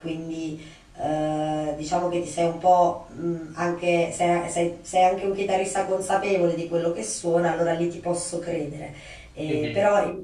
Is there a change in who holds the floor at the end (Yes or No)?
No